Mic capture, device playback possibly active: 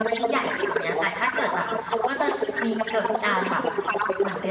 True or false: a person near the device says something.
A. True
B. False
A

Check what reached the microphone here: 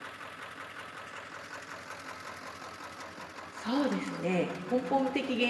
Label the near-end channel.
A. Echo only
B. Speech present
B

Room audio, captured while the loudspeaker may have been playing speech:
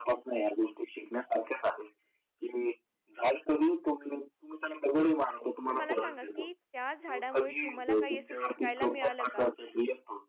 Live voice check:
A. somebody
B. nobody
A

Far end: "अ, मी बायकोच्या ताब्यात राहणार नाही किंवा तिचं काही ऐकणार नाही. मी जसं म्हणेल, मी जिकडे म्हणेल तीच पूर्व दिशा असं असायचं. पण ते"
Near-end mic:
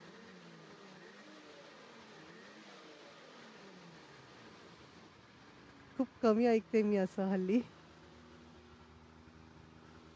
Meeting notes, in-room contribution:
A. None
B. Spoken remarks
B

